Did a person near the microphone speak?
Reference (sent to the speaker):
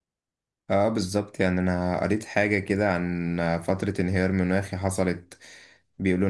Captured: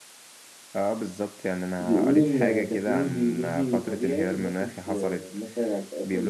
Yes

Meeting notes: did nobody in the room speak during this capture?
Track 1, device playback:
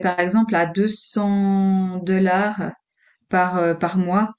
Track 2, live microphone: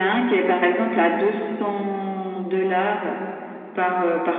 Yes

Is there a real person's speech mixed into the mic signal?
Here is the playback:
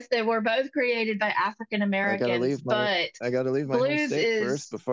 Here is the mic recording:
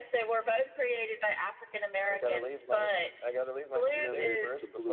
Yes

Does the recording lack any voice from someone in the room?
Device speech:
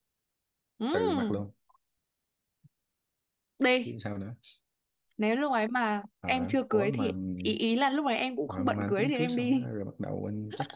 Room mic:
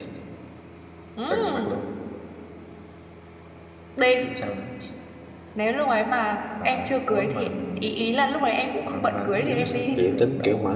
No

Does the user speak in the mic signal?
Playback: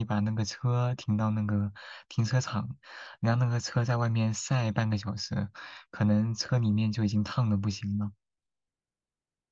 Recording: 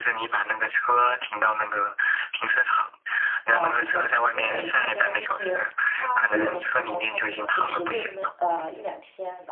Yes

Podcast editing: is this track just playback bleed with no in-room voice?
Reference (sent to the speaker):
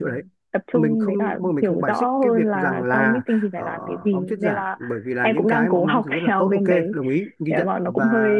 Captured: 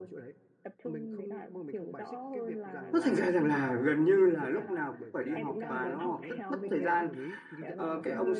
No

